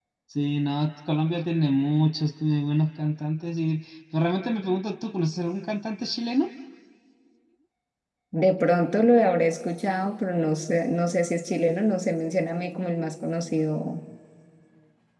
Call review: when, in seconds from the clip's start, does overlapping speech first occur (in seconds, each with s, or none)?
none